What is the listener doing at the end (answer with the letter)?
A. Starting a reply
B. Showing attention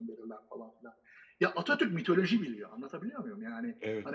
B